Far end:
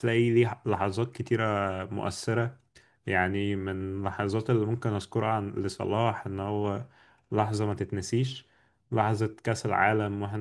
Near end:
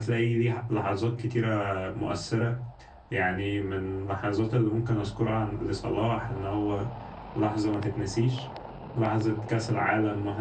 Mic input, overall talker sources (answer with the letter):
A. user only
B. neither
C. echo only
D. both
C